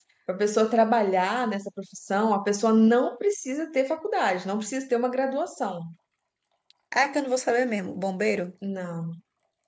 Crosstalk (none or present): none